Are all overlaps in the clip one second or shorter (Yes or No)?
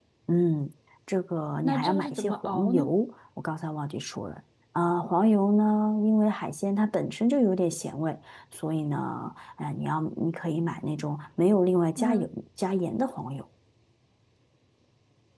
No